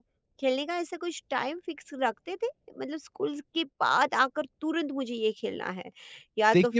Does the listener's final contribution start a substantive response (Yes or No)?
Yes